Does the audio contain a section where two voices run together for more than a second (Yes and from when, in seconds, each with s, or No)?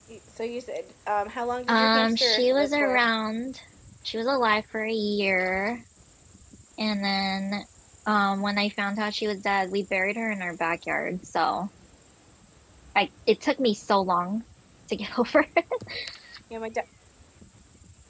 Yes, from 1.7 s